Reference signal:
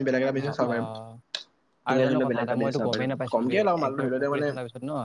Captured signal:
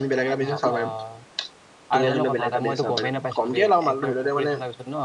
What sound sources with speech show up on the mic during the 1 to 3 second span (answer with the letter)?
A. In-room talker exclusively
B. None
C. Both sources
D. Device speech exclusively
D